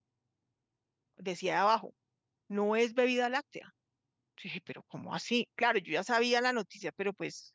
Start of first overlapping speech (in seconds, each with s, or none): none